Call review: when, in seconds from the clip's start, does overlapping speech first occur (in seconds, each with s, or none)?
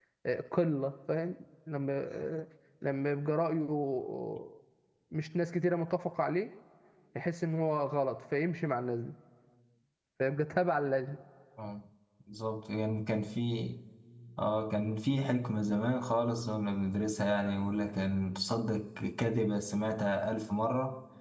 none